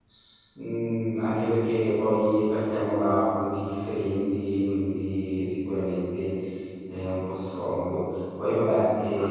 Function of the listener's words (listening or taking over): listening